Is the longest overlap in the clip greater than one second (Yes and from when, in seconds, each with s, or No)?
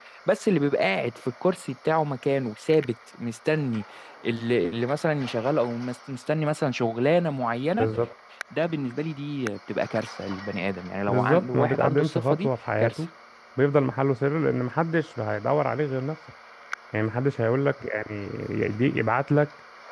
Yes, from 11.1 s